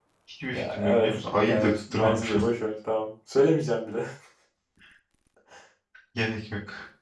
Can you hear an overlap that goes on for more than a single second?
Yes, from 0.5 s

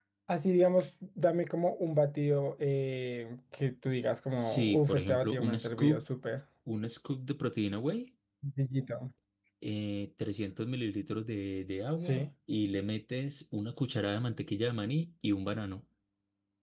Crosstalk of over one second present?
Yes, from 4.4 s

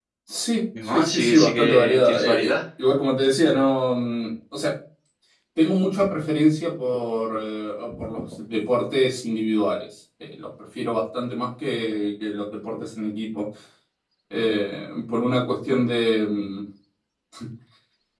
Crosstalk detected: Yes, from 0.8 s

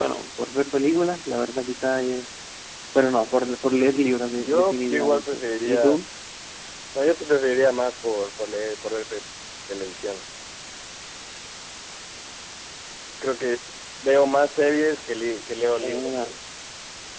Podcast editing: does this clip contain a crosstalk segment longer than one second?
Yes, from 4.4 s

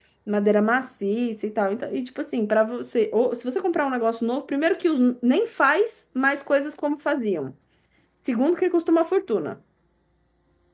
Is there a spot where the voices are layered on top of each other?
No

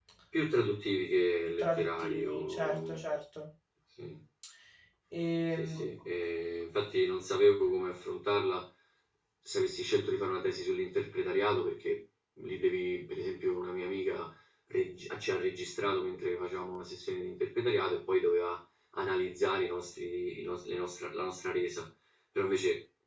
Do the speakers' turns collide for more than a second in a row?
Yes, from 1.6 s

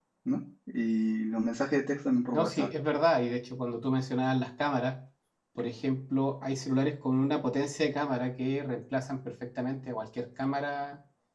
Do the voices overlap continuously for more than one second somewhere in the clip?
No

